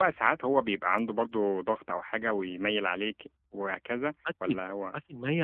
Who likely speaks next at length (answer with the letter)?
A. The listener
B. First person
A